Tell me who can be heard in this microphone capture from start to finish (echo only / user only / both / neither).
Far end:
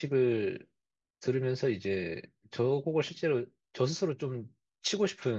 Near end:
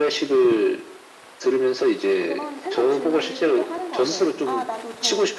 both